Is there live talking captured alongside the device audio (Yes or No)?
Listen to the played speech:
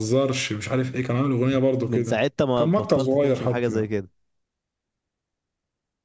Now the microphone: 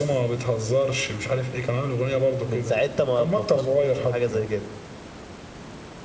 No